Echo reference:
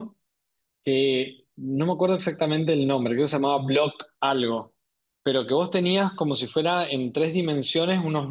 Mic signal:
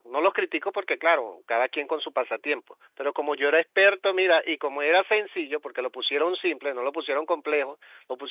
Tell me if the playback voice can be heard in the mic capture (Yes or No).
No